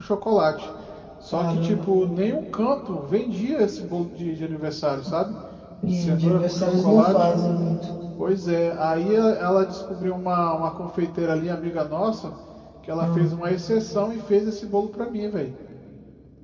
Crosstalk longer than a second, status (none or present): present